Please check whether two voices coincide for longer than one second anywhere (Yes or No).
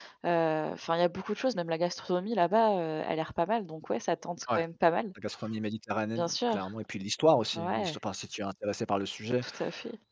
No